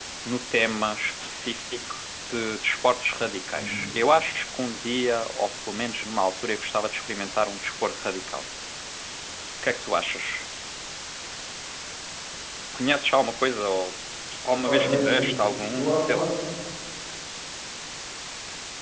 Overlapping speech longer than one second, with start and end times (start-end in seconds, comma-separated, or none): 14.6-16.3